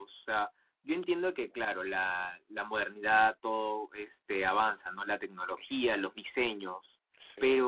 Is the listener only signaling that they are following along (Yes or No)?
Yes